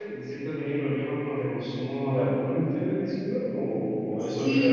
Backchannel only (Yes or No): No